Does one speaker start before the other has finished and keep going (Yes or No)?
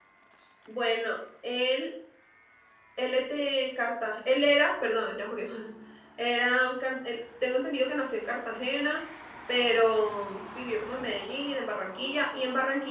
No